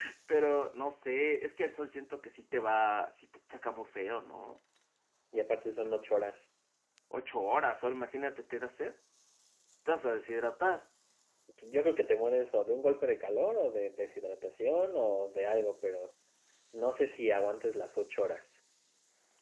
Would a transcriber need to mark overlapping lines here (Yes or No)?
No